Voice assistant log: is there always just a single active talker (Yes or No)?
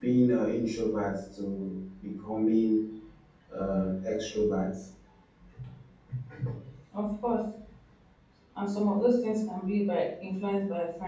Yes